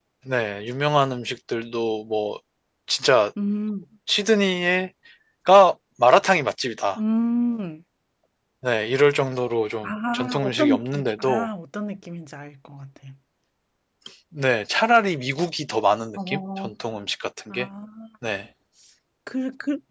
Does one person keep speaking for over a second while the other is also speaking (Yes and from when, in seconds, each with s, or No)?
Yes, from 9.8 s